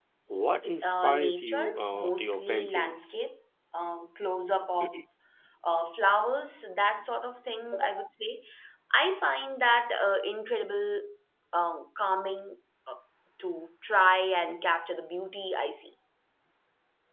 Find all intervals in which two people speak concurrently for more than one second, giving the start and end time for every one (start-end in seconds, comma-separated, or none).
0.8-3.2